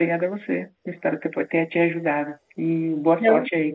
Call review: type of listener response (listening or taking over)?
listening